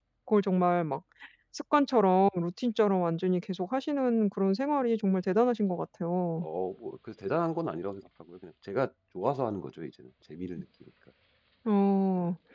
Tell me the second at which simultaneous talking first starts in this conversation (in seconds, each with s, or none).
none